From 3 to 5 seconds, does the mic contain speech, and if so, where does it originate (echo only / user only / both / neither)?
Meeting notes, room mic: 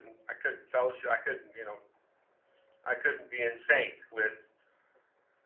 echo only